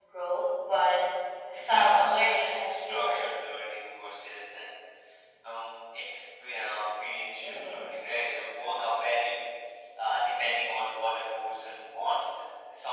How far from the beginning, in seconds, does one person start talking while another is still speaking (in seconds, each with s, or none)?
1.5 s